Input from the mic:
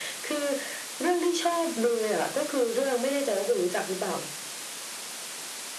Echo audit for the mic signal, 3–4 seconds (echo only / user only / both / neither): echo only